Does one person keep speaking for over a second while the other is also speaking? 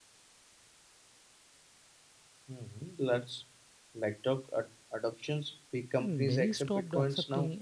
Yes, from 6.0 s

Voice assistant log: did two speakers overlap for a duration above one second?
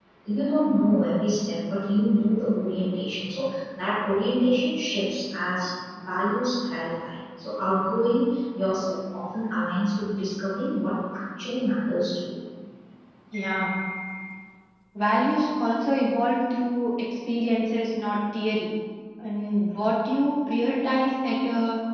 No

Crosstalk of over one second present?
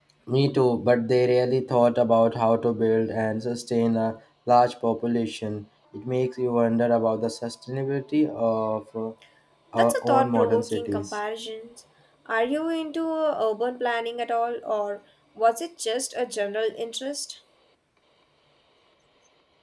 Yes, from 9.7 s

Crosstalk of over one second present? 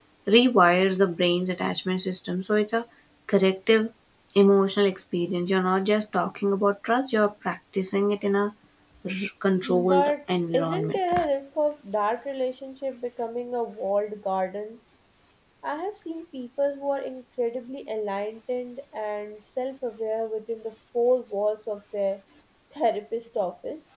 Yes, from 9.6 s

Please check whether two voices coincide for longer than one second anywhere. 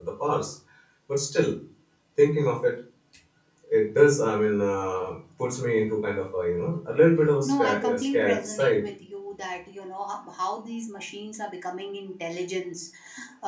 Yes, from 7.4 s

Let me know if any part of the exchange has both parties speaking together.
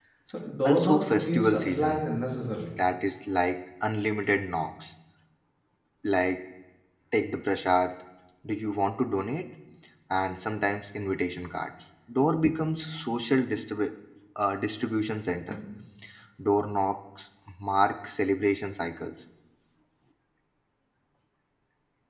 Yes, from 0.7 s

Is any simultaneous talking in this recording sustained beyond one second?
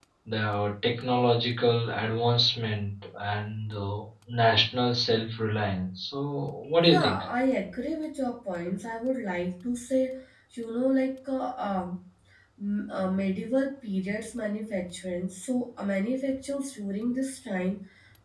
No

